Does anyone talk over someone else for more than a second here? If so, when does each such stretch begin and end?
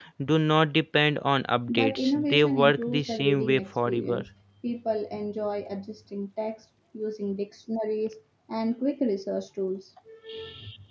1.7-4.2

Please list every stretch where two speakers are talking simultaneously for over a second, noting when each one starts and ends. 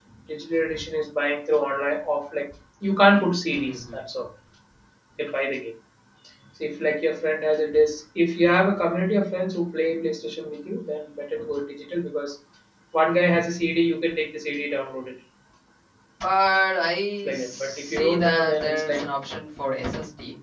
17.2-19.0

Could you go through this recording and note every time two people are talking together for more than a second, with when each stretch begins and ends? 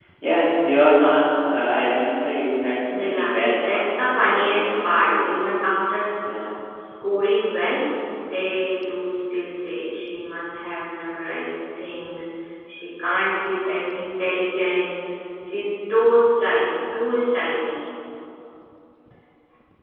3.6-5.2

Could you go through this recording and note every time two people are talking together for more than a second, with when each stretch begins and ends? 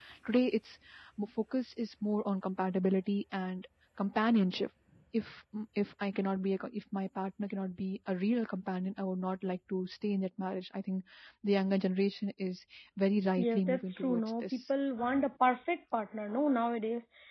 13.4-14.6

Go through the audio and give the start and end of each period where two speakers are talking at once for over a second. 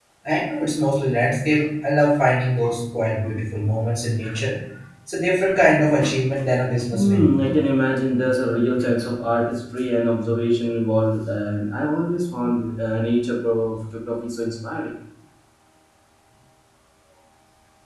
none

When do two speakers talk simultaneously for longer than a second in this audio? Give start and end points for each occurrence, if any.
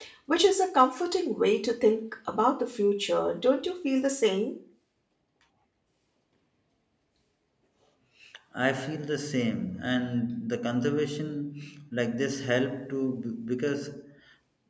none

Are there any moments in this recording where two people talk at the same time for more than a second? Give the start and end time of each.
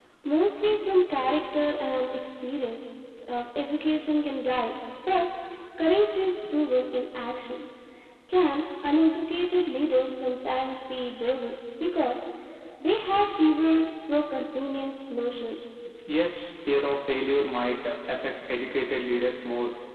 none

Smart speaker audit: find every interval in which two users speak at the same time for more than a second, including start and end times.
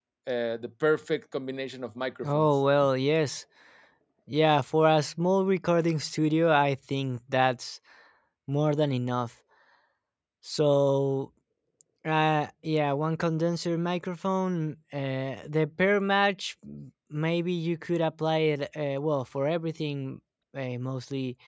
none

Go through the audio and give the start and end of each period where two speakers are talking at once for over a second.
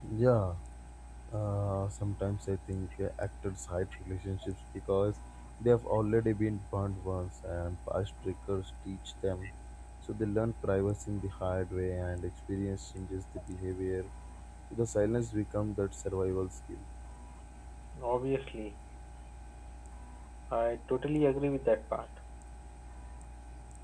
none

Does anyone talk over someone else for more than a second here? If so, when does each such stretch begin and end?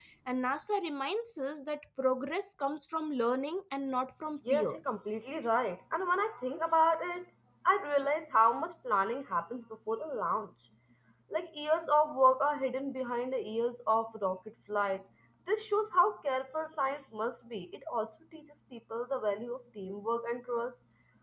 none

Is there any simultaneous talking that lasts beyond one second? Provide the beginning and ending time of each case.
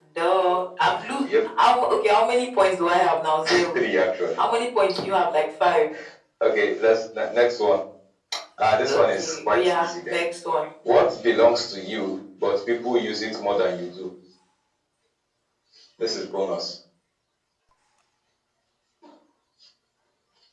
8.9-10.2

